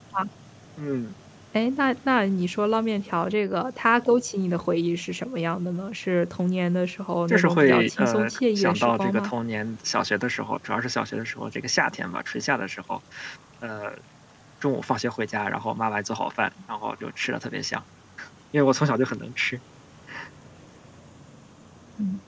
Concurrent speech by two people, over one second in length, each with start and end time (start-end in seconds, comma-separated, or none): 7.3-9.3